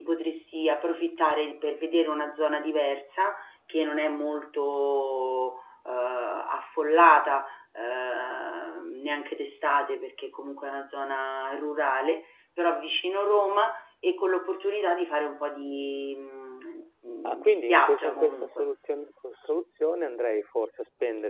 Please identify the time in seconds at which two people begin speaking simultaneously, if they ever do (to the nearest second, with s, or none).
17 s